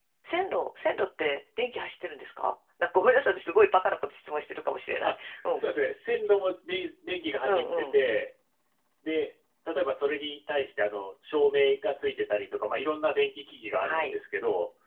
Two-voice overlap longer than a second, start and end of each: none

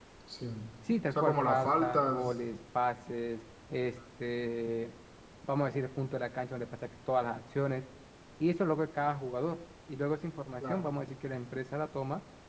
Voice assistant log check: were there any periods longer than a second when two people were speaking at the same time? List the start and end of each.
1.1-2.3

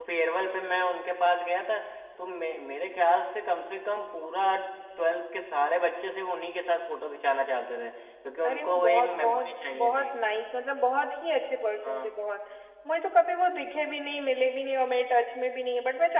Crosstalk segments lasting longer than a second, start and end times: 8.4-10.1

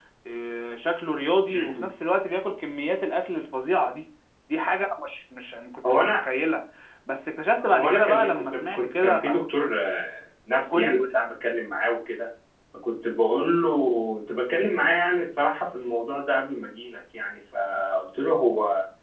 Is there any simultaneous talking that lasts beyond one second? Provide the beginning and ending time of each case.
7.6-9.2

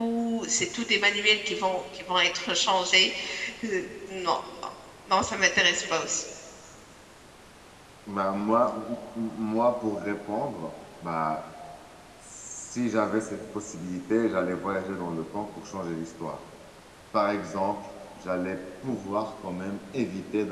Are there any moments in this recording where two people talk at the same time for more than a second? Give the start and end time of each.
none

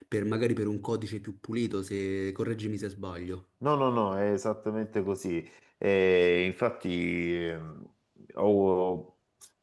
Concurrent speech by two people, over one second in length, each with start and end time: none

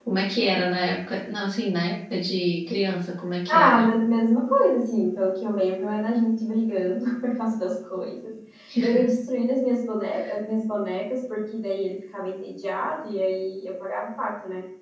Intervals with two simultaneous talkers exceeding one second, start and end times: none

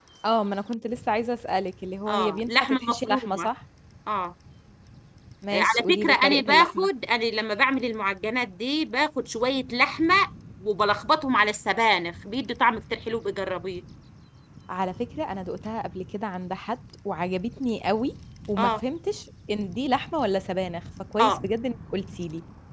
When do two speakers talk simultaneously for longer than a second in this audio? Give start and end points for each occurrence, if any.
2.1-3.5, 5.5-6.9

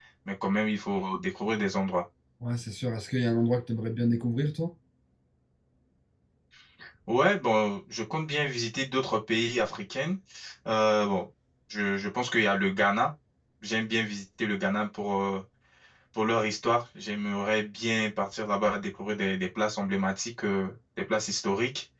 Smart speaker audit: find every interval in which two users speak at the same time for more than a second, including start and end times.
none

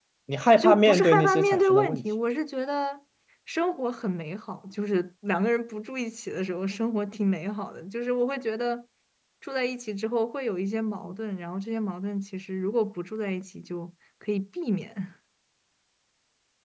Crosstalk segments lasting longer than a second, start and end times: 0.6-2.0

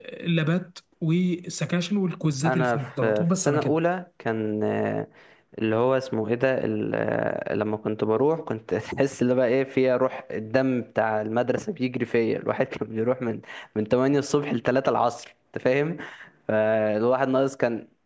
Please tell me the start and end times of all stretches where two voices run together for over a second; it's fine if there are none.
2.5-3.7

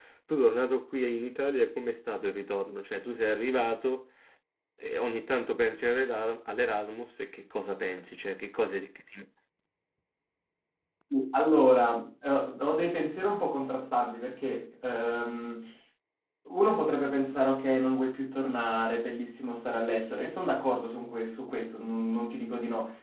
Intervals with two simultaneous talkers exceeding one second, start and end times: none

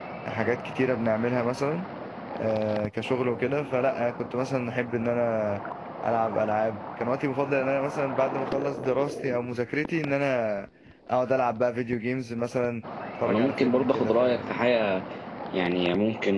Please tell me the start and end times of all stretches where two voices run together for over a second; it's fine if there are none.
13.3-14.6

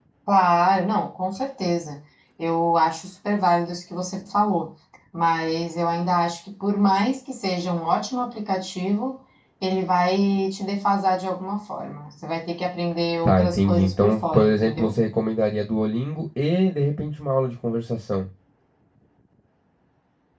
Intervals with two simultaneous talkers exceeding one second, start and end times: 13.2-14.9

